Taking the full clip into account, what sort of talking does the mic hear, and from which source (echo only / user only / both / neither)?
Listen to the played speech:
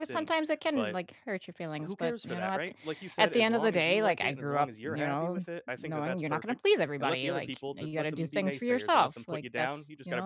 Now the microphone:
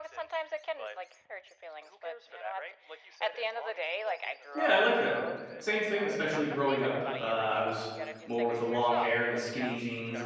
both